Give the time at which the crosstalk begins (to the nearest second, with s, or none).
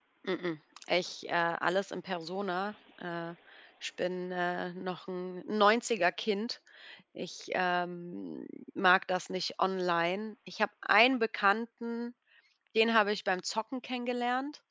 none